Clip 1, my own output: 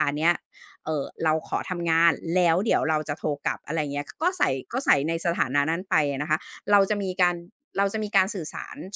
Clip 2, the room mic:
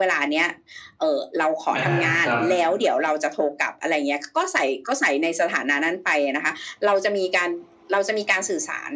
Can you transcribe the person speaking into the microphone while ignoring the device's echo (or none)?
อาครับ